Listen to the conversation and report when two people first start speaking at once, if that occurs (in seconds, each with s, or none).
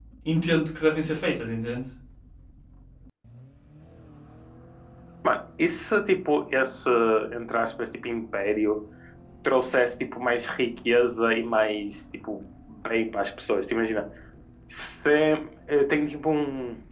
none